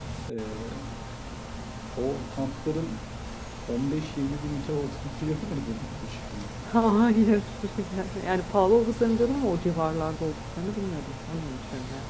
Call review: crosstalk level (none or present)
none